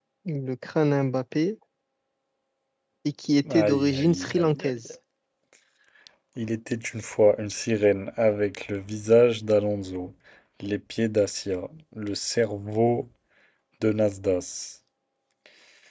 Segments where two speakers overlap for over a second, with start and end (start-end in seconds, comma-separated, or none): 3.5-4.7